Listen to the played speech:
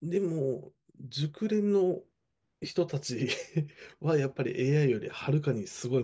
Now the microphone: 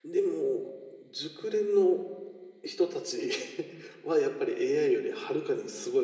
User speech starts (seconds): none

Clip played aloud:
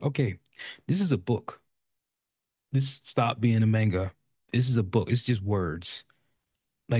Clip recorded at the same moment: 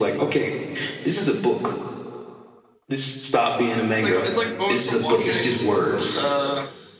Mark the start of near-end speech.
3.9 s

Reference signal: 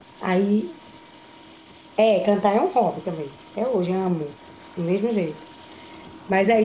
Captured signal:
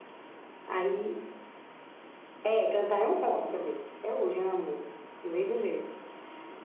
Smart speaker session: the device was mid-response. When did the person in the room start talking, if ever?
none

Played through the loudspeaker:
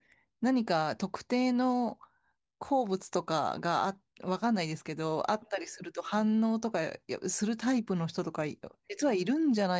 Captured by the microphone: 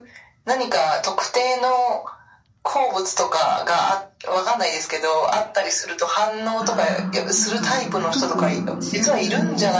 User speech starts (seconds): 6.6 s

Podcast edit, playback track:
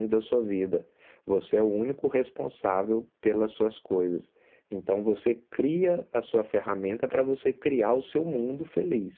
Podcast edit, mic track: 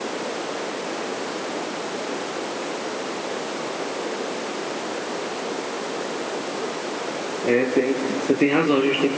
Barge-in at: 7.4 s

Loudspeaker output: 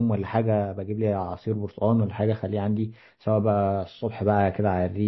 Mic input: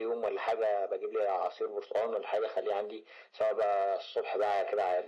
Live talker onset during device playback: none

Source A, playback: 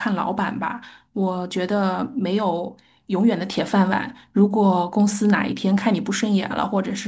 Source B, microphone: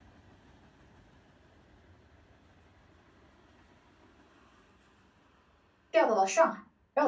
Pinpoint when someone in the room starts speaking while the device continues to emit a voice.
5.9 s

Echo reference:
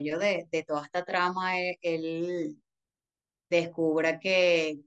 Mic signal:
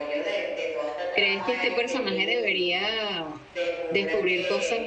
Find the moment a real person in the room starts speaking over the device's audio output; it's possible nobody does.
1.1 s

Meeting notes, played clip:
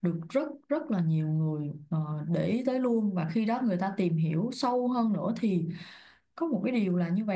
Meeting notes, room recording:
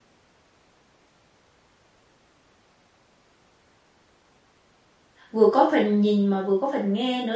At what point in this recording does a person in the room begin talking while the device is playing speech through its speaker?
5.3 s

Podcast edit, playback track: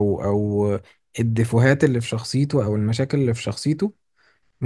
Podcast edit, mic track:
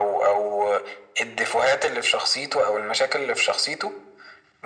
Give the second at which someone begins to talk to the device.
none

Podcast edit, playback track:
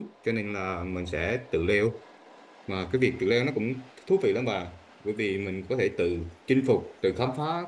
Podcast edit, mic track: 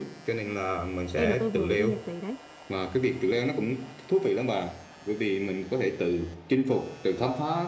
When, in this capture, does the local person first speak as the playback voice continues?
1.1 s

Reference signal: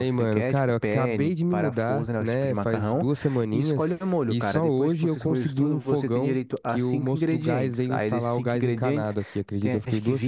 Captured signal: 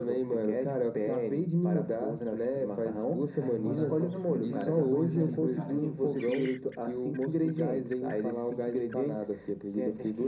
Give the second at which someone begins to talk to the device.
3.4 s

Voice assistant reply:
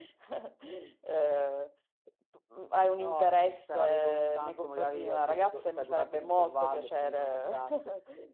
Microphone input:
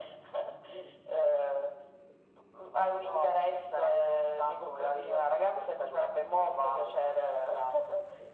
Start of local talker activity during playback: none

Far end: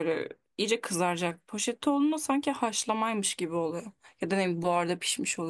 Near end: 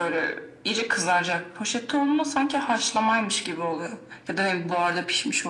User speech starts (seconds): none

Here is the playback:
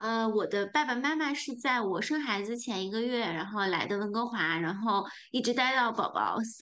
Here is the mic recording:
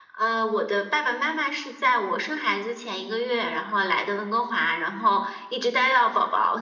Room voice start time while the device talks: none

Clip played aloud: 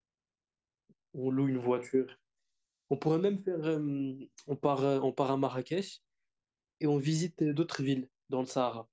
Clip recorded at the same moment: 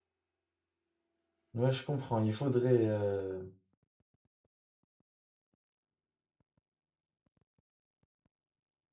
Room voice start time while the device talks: 1.5 s

